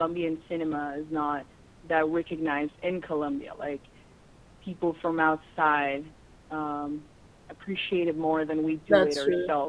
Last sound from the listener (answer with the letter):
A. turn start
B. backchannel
B